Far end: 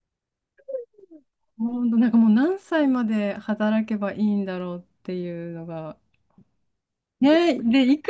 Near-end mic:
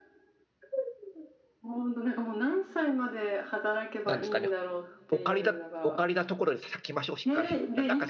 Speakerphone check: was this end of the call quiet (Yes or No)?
No